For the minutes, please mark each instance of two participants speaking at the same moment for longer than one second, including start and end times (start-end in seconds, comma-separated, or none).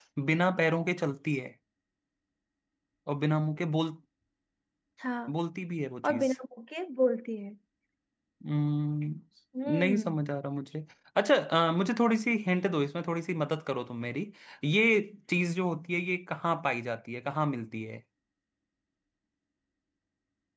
none